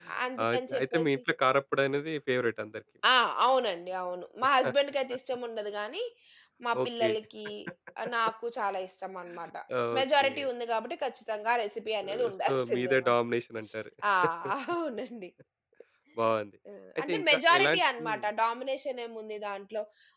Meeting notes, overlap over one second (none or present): present